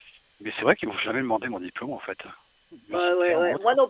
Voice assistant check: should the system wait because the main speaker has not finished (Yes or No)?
No